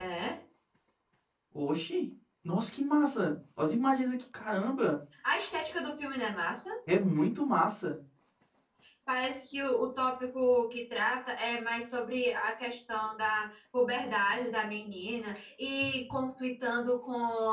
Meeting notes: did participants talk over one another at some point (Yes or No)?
No